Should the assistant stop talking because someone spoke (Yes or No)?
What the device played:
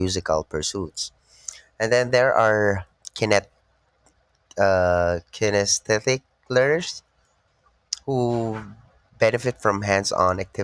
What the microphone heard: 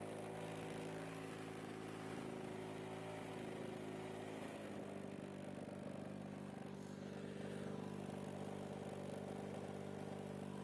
No